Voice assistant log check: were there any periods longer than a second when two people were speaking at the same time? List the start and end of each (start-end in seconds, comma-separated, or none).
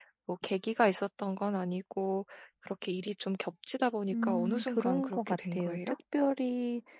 4.1-6.0